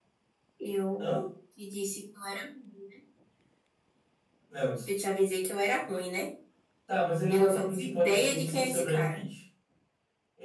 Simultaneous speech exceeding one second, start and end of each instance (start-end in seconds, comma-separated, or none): 7.3-9.2